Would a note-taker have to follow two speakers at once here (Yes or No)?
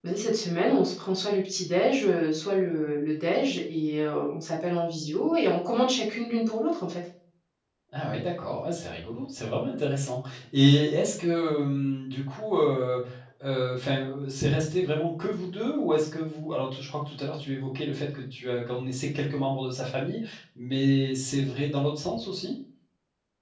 No